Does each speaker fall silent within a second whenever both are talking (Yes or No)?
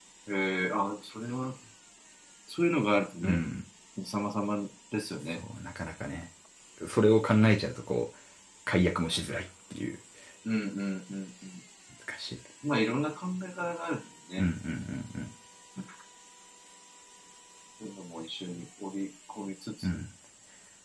Yes